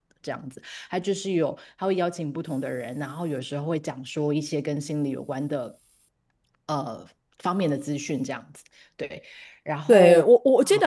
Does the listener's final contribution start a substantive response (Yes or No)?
Yes